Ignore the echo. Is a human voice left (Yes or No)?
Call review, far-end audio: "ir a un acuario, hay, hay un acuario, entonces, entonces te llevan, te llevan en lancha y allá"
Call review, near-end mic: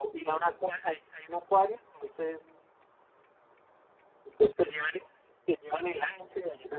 No